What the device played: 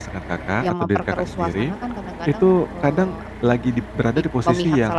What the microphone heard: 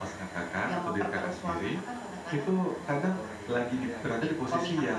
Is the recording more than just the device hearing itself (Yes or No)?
Yes